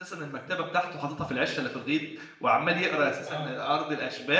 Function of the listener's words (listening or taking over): listening